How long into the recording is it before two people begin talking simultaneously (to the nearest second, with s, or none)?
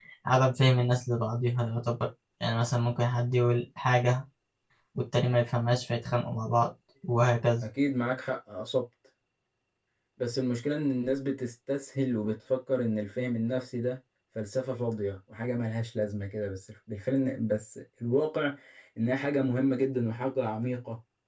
none